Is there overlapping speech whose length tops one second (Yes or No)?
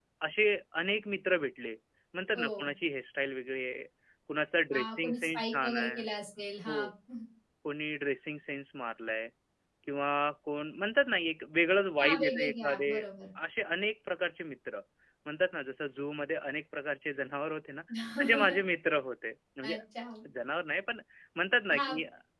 Yes